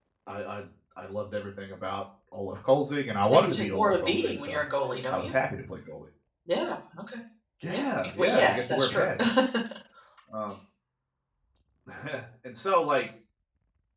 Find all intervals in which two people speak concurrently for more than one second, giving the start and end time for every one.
3.2-4.6, 7.7-9.1

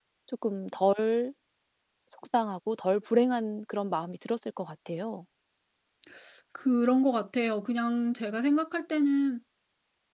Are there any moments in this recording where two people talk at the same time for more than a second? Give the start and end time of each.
none

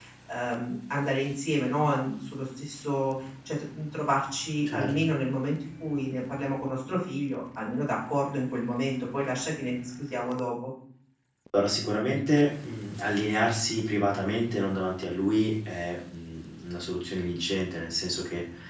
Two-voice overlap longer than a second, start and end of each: none

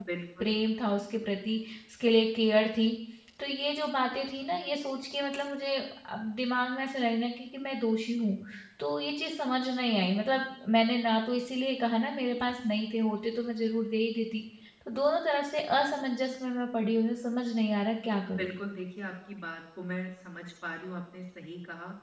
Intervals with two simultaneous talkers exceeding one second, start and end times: none

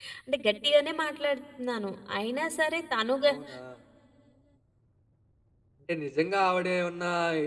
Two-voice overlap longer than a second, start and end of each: none

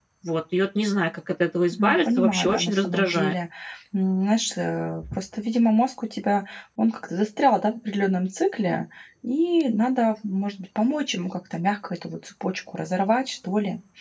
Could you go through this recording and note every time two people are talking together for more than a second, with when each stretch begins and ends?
1.8-3.4

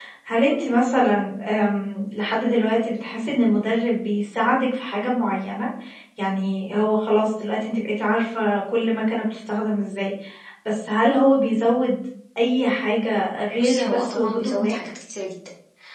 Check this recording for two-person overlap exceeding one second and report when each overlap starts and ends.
13.6-14.8

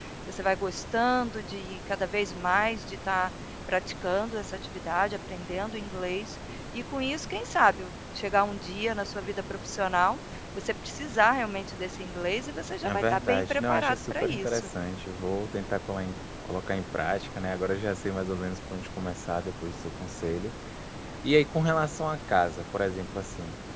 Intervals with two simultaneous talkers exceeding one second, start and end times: 12.8-14.7

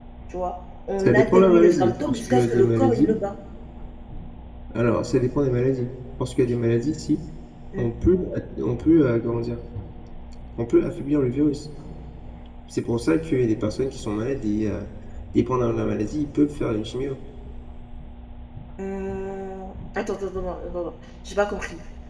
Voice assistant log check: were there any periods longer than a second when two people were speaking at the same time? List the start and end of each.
1.0-3.1

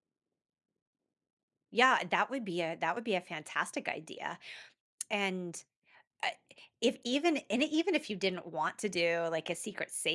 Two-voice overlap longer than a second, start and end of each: none

